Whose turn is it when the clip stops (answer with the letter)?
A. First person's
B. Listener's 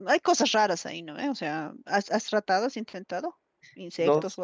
B